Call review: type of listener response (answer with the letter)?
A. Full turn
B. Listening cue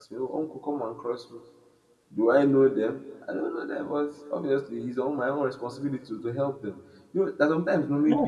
B